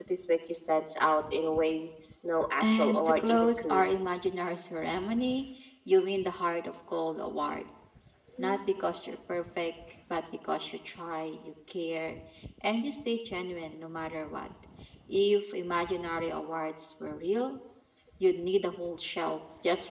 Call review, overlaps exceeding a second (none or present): present